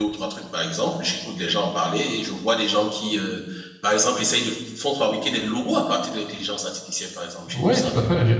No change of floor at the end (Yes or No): No